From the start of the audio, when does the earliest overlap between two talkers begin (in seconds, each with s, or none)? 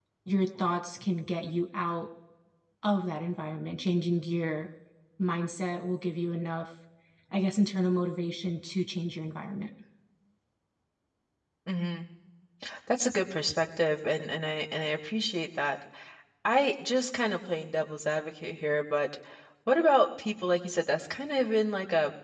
none